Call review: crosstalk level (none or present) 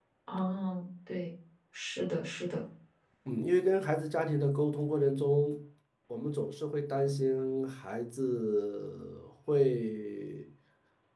none